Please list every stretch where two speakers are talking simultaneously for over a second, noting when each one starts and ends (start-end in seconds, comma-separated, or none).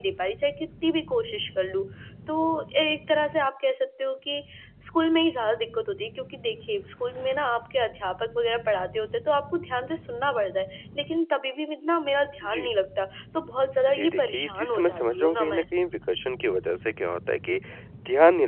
13.9-15.6